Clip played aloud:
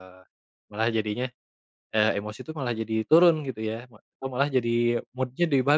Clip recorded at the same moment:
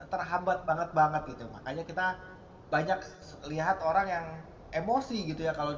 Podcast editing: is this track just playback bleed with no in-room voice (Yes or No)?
No